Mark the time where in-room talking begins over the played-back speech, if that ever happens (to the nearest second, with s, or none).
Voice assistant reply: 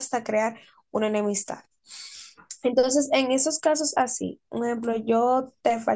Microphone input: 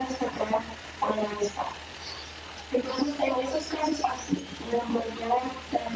none